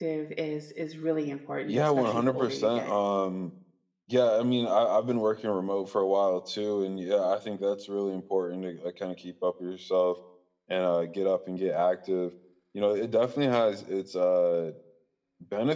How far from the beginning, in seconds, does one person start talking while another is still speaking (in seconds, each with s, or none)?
1.7 s